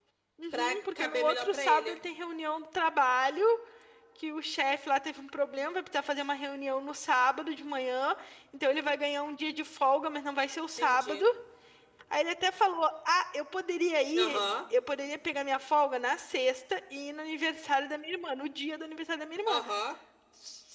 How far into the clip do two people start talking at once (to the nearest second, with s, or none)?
1 s